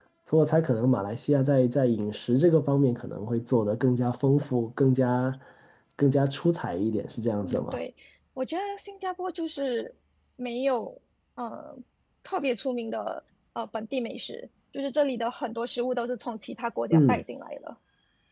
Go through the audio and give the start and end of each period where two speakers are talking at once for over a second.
none

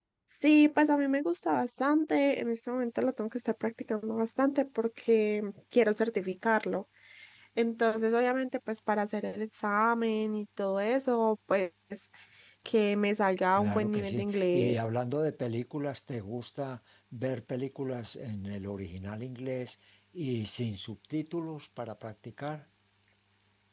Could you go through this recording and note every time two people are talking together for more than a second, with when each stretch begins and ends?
13.6-14.8

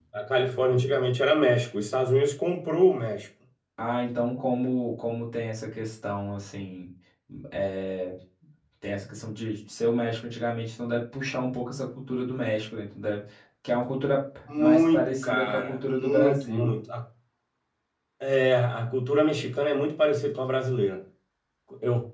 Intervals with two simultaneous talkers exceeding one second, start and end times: 14.6-16.7

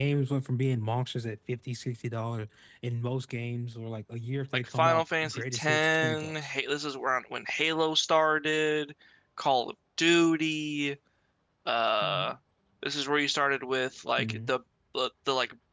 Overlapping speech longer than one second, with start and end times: 4.5-6.5

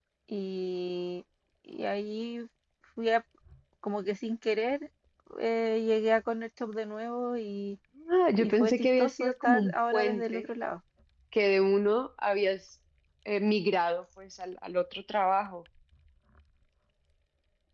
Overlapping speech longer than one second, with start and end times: 8.4-10.5

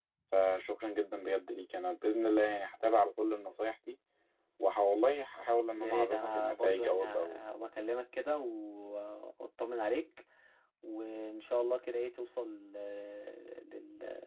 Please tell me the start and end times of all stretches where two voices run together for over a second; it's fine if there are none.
5.8-7.4

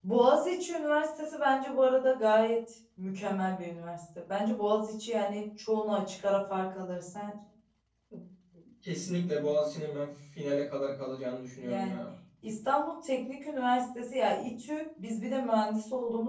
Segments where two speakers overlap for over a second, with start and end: none

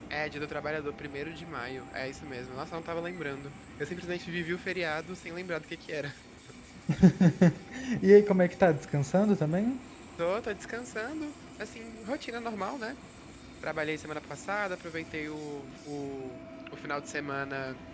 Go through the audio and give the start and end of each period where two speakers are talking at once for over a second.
none

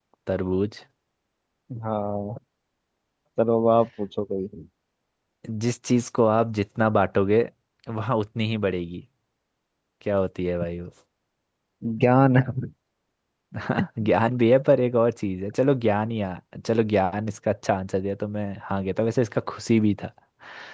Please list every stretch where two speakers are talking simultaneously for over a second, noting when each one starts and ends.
none

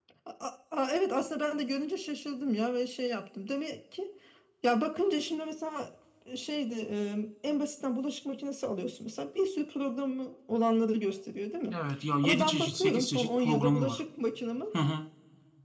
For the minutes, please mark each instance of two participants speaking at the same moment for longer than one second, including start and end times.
12.2-14.0

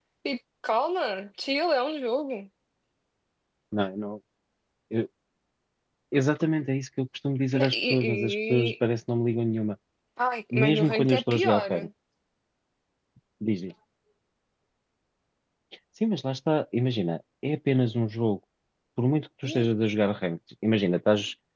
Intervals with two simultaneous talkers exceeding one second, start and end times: 7.5-8.7, 10.5-11.7

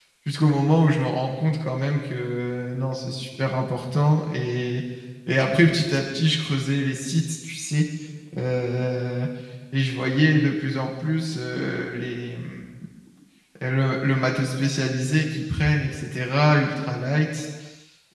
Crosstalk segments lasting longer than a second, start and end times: none

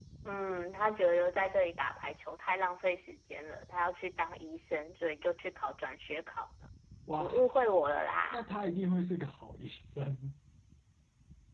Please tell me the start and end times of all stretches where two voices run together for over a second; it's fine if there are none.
none

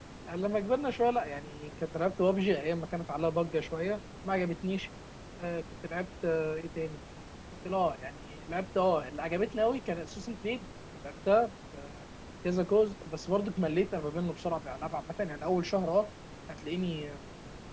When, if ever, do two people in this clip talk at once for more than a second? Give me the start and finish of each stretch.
none

